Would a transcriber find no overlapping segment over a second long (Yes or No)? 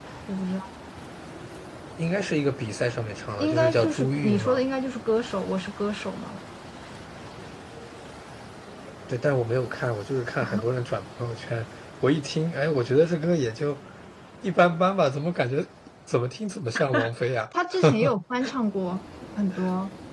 No